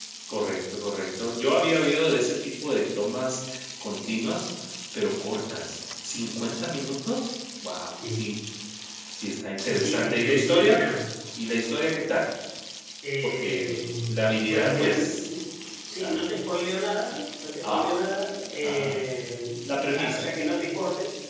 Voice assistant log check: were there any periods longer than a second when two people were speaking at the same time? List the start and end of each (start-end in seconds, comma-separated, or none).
9.6-10.8, 13.2-15.3